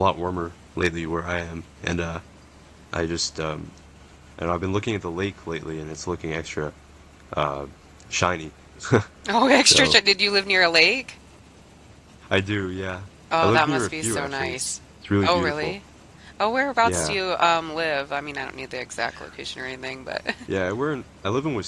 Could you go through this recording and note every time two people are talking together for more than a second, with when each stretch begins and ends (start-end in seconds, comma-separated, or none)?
13.4-14.8